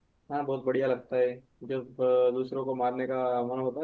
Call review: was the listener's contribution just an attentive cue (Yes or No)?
Yes